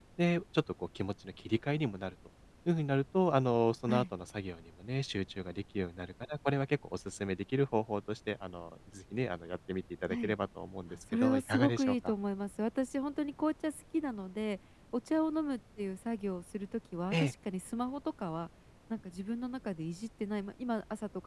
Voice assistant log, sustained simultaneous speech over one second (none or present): present